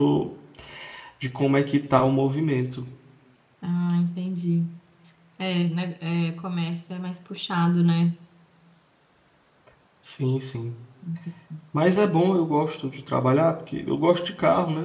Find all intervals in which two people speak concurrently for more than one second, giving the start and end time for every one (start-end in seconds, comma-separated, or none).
none